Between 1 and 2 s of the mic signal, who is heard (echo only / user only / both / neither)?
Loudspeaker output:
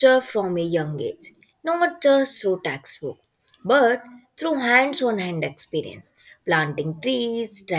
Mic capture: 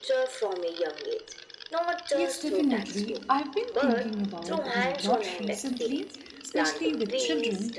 echo only